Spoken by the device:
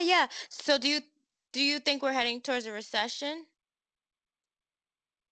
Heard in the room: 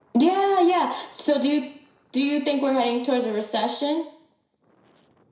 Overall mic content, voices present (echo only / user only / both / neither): echo only